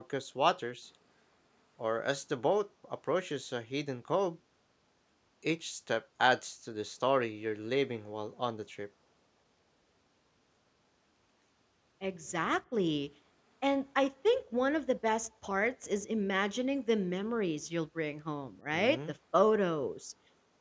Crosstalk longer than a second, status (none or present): none